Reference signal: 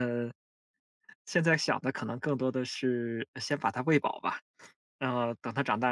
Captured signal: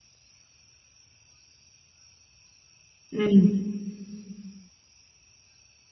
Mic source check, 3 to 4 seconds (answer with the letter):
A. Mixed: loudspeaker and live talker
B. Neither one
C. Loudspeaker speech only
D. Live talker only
D